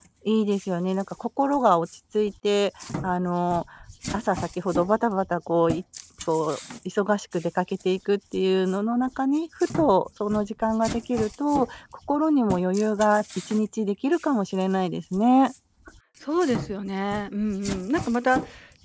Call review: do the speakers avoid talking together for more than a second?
Yes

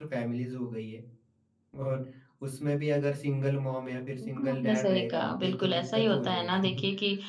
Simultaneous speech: Yes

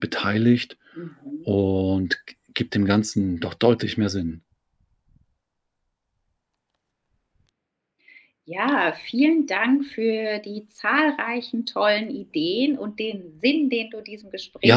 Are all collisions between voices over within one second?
Yes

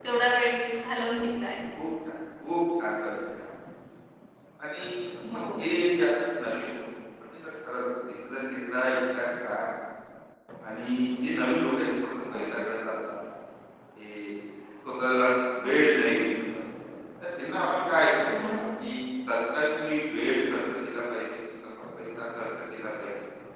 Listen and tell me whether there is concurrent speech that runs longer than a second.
No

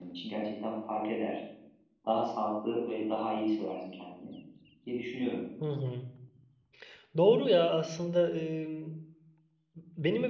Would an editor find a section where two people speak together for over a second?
No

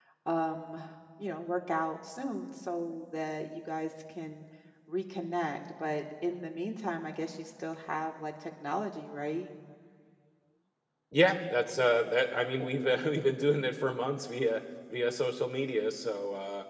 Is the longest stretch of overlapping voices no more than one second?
Yes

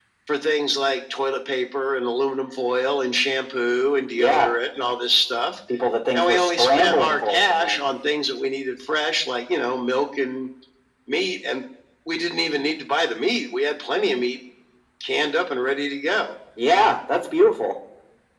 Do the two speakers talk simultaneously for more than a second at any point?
Yes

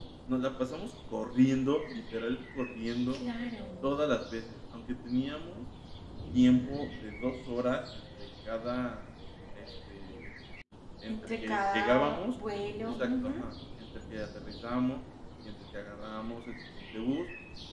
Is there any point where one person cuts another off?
Yes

